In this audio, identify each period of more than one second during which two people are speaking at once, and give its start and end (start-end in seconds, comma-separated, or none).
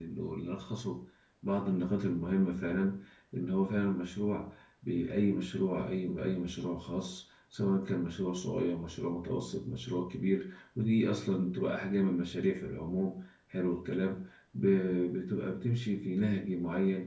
none